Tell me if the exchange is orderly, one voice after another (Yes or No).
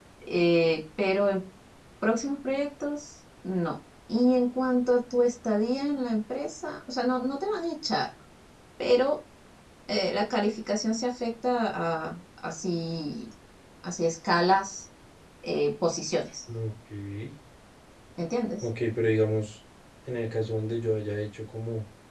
Yes